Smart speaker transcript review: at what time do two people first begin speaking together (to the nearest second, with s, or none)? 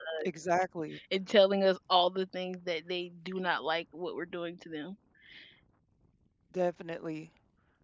none